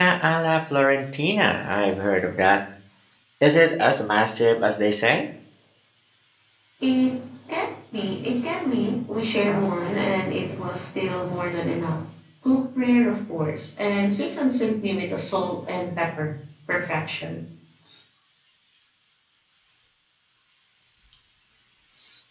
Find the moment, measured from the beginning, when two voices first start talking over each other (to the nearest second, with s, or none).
none